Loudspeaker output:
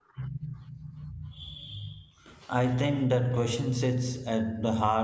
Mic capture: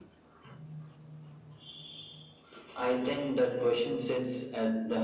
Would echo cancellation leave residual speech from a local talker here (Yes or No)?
No